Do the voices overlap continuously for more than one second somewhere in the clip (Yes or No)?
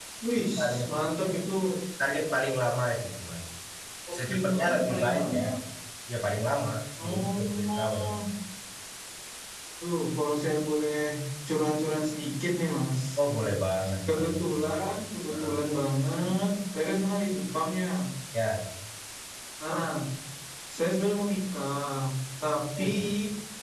Yes